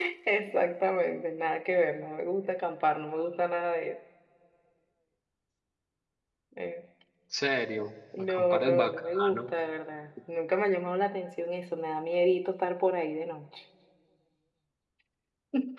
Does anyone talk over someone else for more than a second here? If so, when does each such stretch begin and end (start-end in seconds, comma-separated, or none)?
8.2-9.5